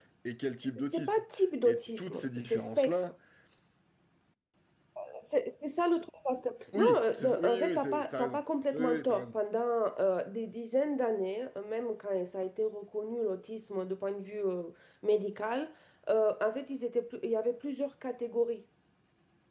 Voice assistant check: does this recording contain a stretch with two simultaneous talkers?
Yes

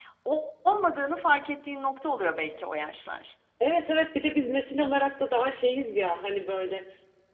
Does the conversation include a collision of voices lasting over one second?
No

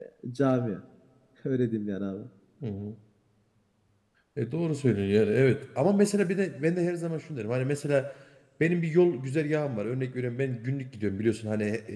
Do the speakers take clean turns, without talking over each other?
Yes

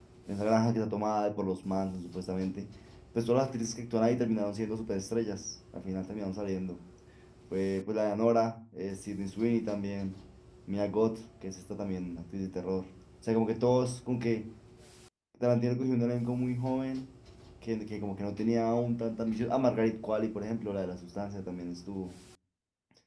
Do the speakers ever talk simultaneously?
No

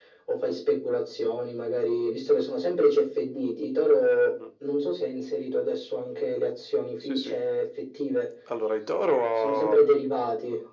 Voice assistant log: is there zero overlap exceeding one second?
Yes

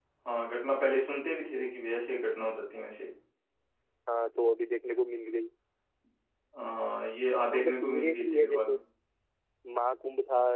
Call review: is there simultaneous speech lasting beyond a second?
Yes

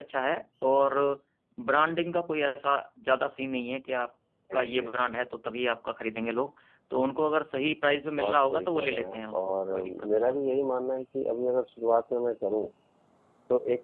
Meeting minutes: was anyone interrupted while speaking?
Yes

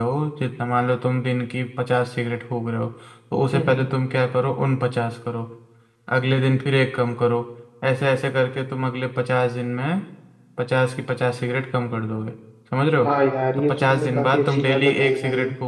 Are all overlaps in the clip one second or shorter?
No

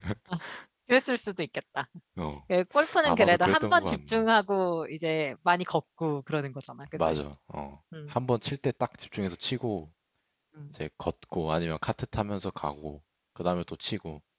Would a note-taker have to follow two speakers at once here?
Yes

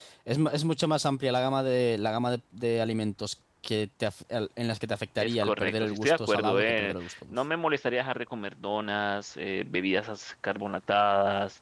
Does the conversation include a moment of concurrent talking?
Yes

